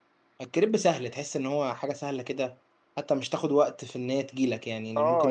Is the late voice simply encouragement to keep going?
No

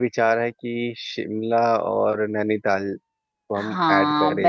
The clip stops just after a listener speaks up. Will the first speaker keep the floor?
No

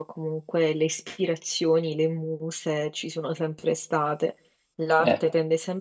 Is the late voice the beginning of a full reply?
No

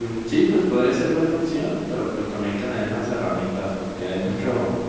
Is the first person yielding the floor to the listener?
No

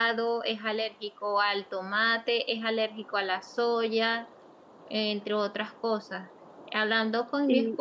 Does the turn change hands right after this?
No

